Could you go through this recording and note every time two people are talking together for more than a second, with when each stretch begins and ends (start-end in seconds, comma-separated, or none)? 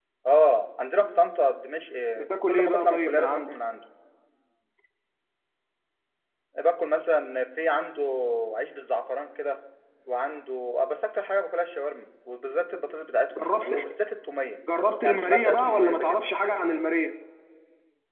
2.2-3.5, 15.0-16.6